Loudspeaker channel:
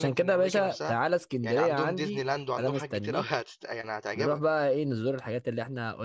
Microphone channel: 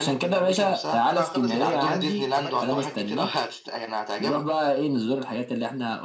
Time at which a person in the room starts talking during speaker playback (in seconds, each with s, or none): 1.1 s